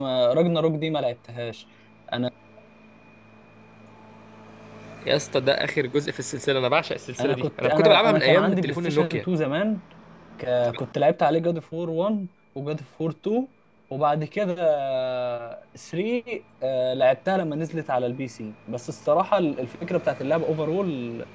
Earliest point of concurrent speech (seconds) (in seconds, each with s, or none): 7.2 s